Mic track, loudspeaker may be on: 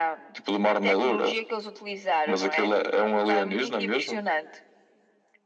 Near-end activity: none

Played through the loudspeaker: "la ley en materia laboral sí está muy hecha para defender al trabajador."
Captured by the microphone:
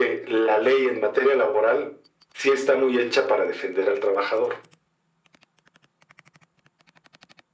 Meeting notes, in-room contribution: none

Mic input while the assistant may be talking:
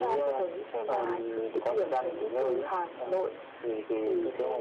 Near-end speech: none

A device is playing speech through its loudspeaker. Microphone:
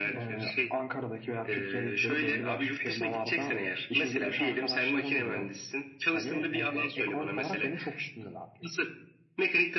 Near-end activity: none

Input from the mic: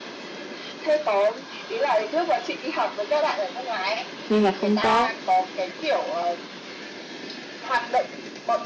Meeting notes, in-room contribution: present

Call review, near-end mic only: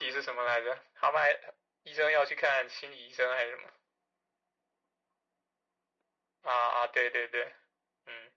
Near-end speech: none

